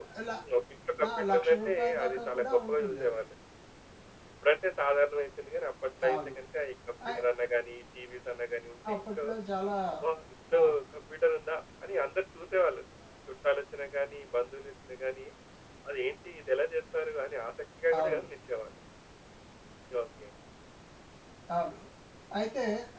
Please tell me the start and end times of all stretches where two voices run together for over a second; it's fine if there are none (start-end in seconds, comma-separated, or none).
1.0-3.2